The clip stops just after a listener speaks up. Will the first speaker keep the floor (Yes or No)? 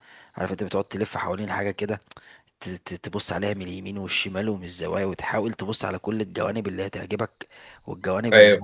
Yes